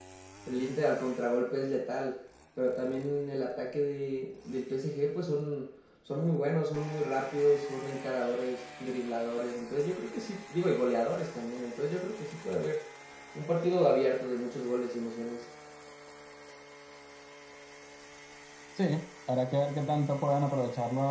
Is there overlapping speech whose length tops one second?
No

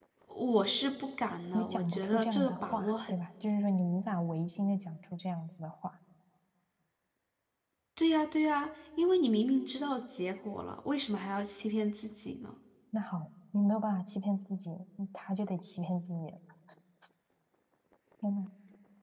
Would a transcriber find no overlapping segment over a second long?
No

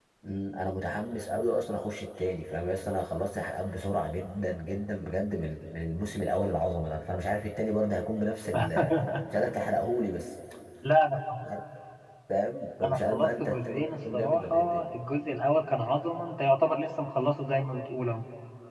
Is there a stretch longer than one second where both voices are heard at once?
Yes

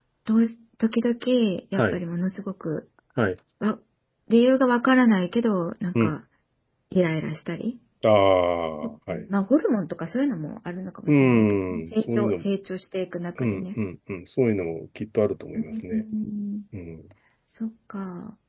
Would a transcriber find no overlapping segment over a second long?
No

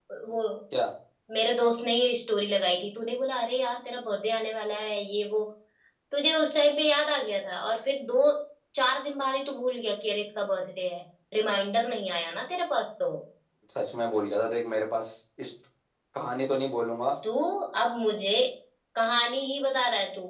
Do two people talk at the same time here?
No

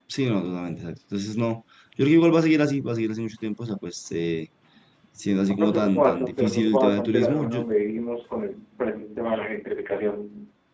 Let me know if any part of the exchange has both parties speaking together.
Yes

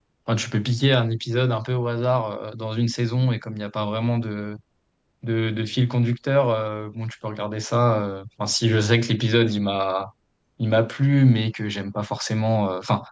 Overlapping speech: No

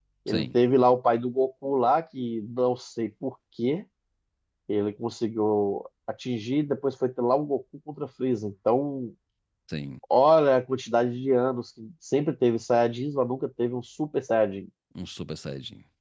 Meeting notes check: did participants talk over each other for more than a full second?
No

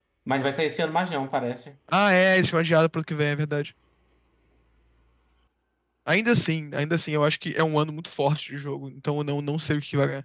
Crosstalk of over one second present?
No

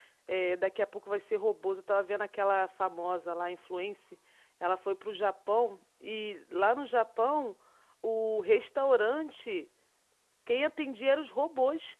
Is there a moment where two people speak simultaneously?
No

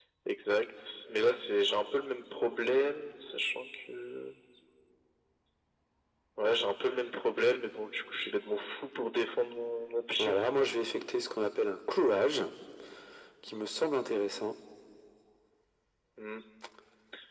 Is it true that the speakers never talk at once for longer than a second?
Yes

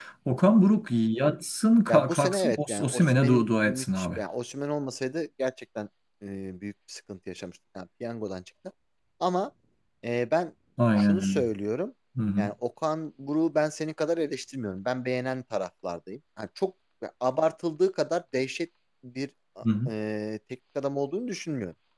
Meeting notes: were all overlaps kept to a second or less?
No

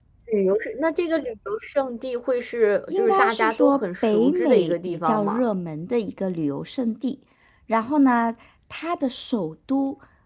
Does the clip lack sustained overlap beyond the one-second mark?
No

